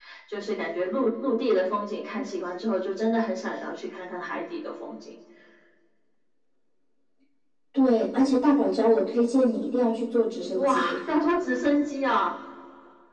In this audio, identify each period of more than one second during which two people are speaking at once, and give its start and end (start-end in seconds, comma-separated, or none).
none